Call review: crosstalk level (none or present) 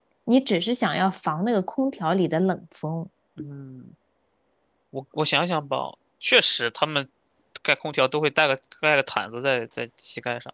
none